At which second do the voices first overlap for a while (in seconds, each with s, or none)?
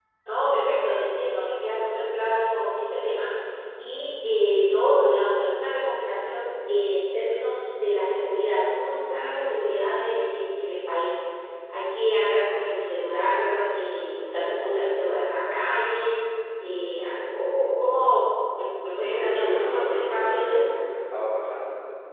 19.0 s